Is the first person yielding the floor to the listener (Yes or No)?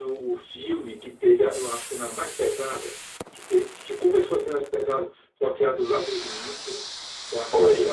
No